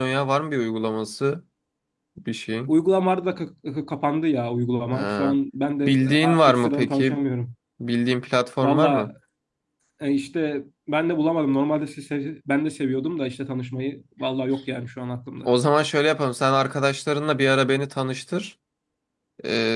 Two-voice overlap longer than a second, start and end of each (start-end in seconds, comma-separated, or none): 5.8-7.2